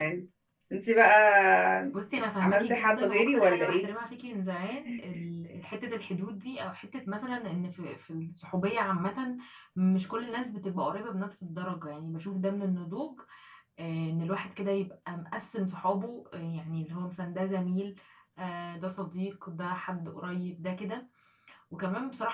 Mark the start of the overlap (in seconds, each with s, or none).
2.4 s